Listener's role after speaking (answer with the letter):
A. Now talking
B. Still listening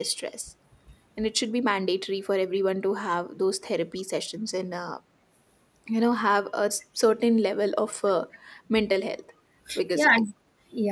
A